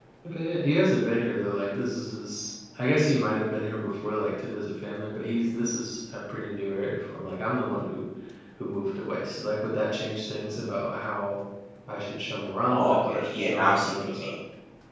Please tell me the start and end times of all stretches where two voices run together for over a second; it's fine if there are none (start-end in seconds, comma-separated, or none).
12.7-14.3